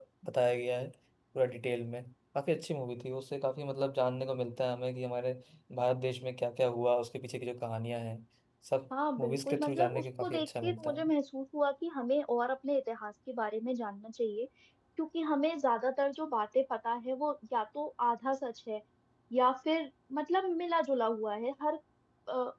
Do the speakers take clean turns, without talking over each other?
No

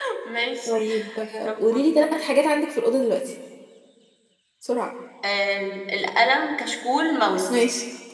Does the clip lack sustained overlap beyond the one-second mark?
Yes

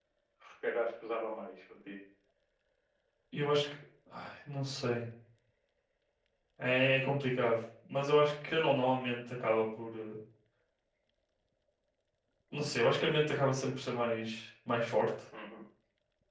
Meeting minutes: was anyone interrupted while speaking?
No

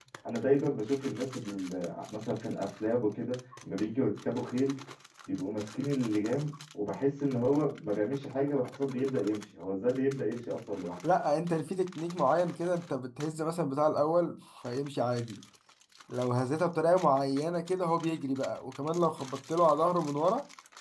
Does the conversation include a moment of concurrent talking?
No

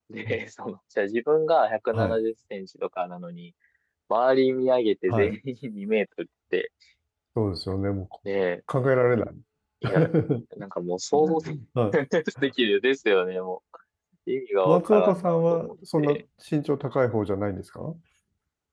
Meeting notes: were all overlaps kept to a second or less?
No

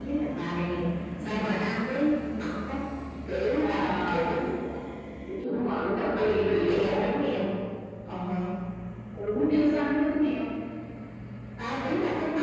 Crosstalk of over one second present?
Yes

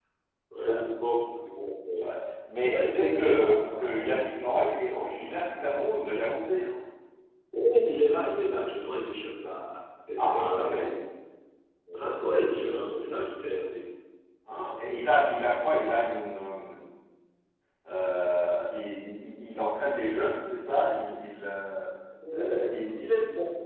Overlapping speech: Yes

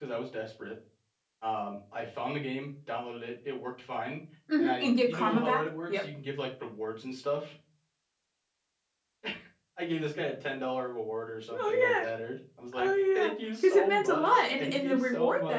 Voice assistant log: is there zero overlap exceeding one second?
No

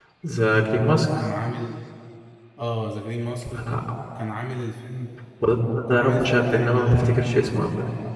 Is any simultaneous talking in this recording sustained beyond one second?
Yes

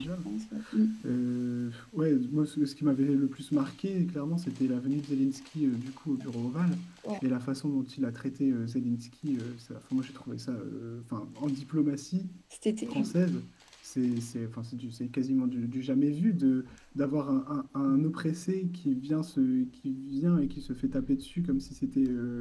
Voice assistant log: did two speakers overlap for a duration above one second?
No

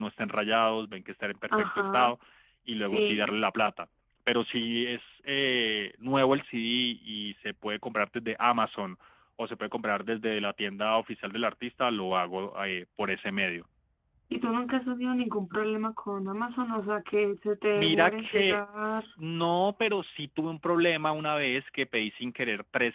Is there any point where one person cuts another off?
Yes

